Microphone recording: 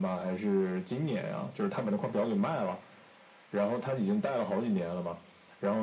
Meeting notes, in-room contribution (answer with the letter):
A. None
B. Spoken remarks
A